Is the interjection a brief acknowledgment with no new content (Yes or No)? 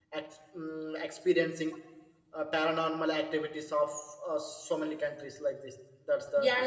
No